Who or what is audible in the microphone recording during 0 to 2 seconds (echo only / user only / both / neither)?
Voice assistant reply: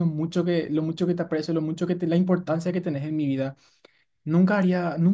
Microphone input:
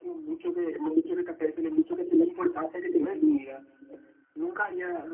echo only